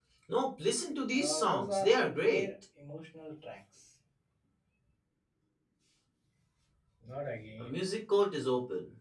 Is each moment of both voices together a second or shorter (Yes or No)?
No